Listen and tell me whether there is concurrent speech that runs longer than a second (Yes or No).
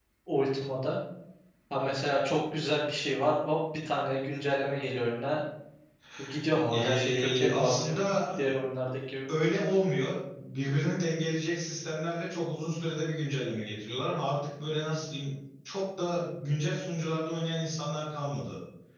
Yes